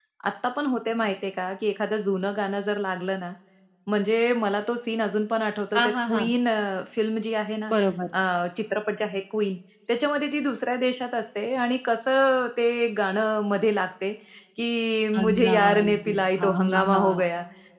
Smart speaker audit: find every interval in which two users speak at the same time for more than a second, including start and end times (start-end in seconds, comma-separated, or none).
15.2-17.2